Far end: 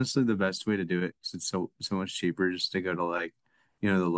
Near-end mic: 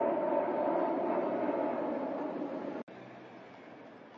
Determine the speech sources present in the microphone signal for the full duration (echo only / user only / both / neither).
neither